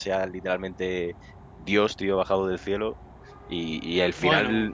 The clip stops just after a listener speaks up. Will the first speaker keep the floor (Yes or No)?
Yes